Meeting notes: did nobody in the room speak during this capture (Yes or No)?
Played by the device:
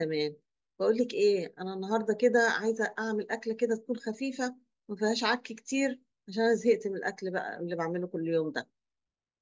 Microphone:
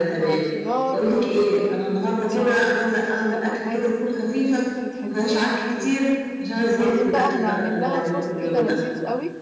No